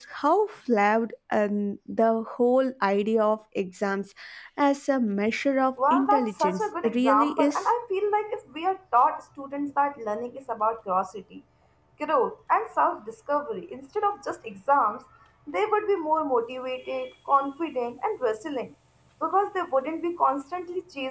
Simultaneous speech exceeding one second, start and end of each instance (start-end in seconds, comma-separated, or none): 5.9-7.6